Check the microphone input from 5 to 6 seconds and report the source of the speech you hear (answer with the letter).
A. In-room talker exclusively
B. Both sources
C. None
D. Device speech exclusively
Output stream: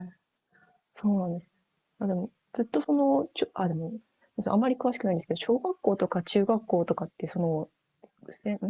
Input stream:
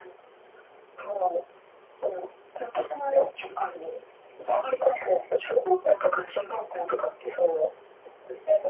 D